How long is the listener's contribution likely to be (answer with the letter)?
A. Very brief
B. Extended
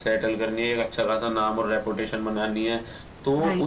A